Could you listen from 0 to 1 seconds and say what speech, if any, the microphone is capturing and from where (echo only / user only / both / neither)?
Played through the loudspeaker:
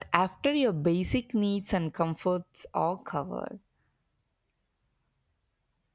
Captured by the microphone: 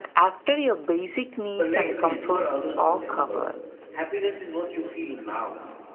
echo only